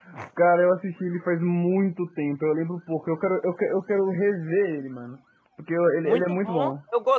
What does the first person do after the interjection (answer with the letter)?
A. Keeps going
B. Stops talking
B